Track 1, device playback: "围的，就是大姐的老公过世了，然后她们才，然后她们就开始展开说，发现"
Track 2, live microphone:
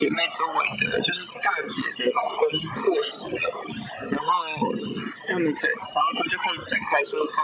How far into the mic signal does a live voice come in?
none

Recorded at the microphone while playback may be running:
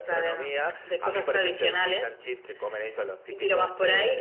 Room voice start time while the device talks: none

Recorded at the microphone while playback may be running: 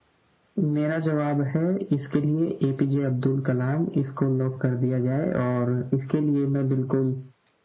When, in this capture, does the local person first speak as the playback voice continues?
none

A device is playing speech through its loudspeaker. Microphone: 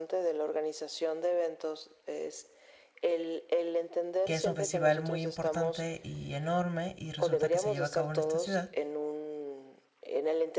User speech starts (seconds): 4.2 s

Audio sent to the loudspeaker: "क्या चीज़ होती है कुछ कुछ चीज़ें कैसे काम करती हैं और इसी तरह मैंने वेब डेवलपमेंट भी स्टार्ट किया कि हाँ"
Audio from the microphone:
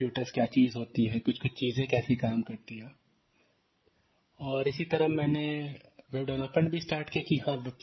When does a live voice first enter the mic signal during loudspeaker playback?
none

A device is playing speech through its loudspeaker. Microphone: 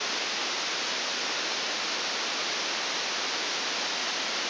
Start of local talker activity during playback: none

